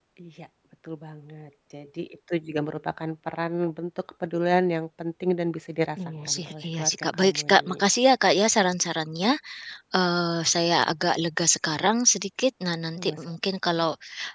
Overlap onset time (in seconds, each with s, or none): 6.2 s